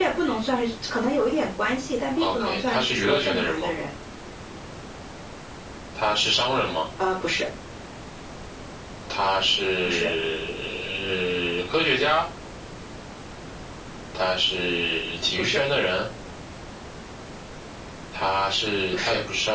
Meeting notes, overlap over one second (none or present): present